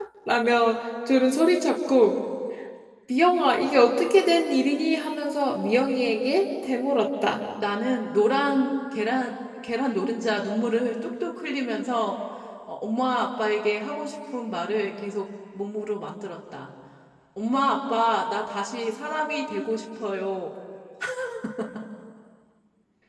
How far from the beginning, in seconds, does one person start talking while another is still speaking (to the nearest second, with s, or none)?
none